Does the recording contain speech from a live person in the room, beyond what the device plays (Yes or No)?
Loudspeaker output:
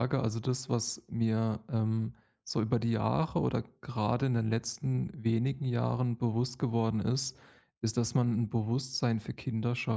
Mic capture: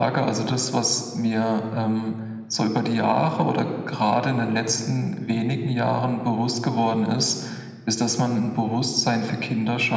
No